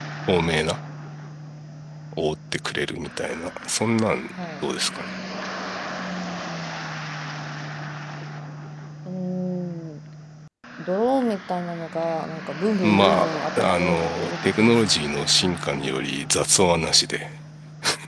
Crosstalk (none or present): present